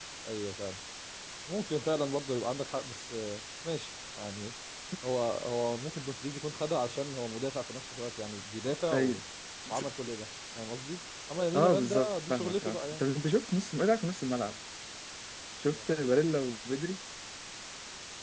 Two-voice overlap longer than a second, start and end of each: 11.6-13.0

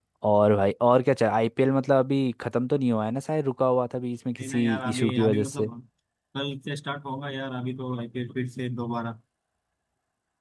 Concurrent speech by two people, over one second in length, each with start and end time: 4.4-5.7

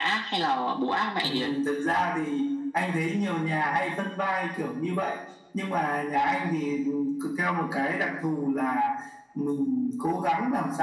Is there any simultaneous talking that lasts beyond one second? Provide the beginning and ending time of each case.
none

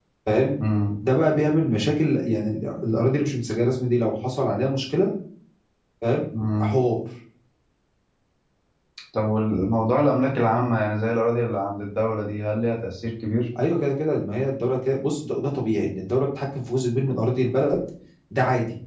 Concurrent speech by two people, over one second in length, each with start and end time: none

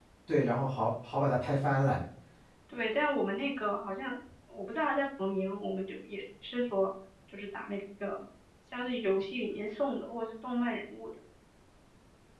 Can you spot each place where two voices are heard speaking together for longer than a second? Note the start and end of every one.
none

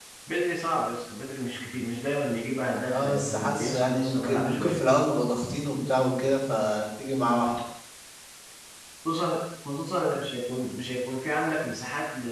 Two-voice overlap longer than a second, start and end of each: 2.9-4.8

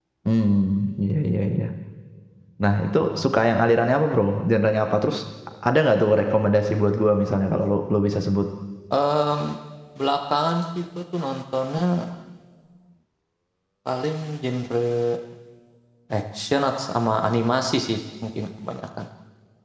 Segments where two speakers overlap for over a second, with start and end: none

